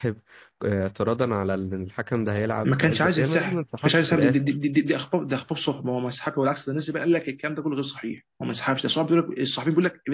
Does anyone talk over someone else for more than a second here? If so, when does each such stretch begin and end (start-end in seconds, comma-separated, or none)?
2.6-4.4